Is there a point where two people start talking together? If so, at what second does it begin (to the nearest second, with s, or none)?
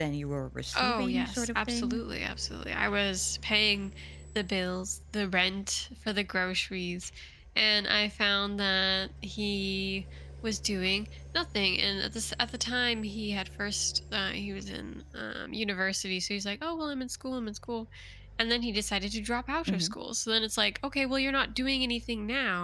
1 s